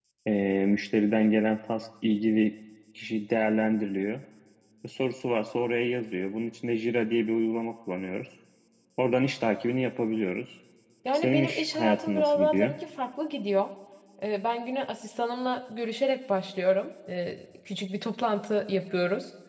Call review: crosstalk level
present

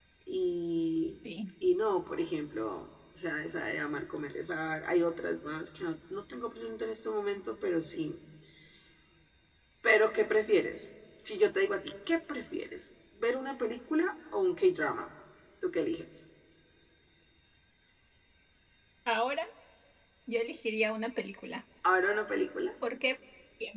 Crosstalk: none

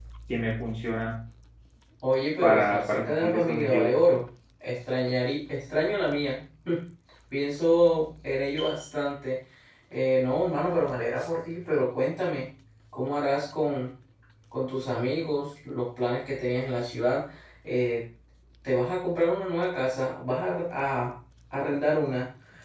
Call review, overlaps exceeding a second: present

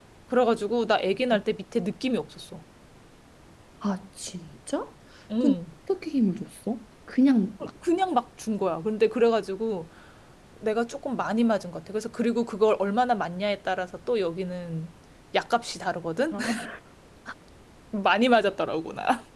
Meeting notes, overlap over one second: none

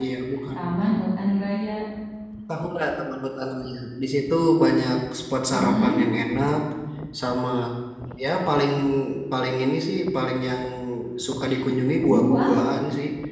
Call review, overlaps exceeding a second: none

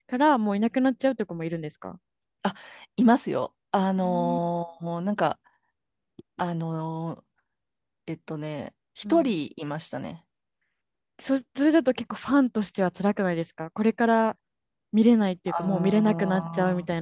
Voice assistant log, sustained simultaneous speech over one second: present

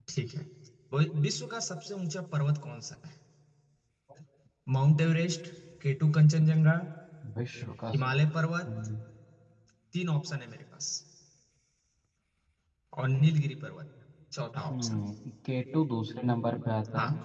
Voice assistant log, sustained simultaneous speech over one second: none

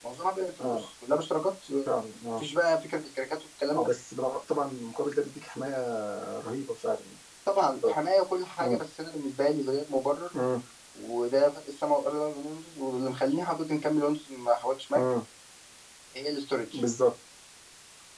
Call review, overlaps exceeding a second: none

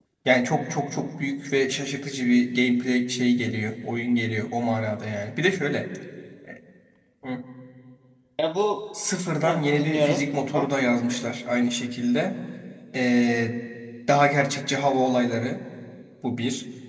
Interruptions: present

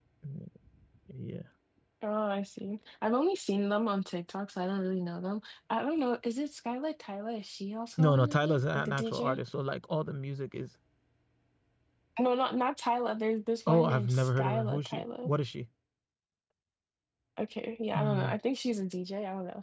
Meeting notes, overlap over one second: present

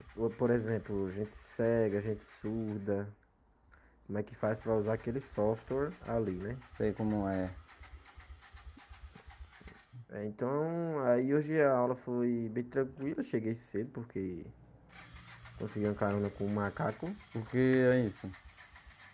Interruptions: none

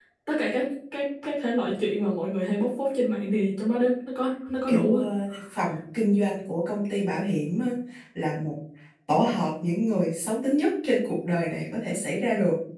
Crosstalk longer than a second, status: none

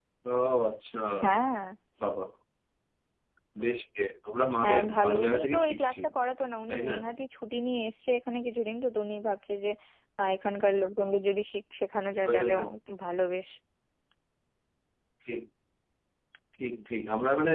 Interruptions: present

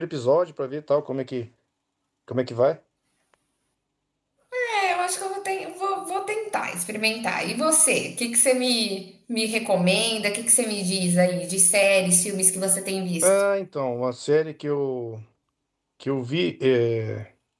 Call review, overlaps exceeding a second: none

